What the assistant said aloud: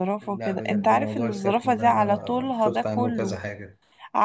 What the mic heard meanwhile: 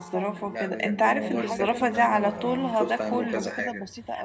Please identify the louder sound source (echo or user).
echo